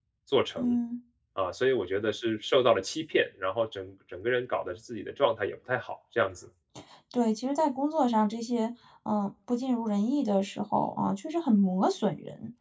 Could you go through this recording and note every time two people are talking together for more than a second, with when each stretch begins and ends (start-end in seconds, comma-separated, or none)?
none